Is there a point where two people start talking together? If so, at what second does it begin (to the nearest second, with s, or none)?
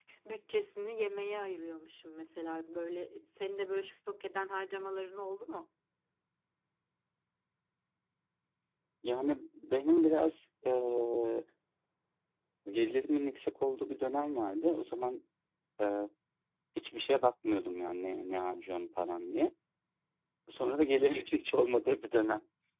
none